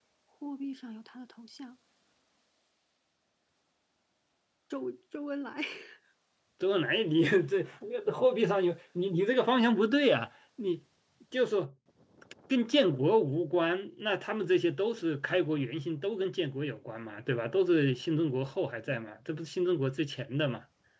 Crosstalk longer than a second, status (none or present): none